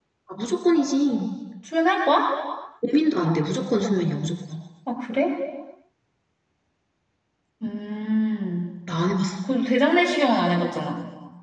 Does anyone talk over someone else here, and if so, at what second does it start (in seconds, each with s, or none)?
none